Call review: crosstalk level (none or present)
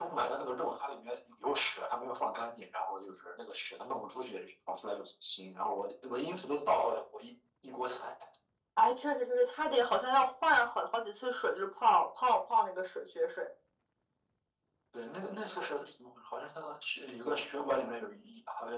none